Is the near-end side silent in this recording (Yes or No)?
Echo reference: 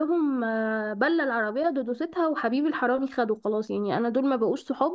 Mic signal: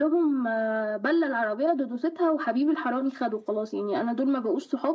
Yes